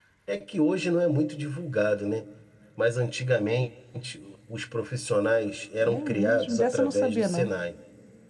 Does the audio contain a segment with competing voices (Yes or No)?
Yes